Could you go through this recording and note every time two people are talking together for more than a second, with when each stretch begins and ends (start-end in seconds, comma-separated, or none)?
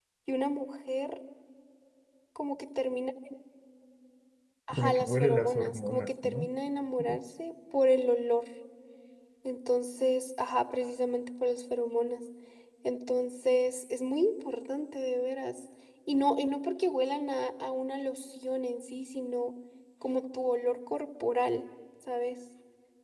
4.8-6.5